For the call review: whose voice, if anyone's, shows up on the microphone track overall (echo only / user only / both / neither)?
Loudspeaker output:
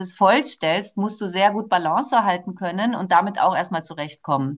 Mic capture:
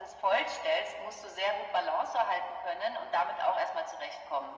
echo only